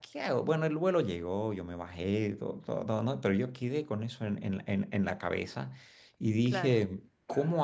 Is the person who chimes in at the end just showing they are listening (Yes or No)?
Yes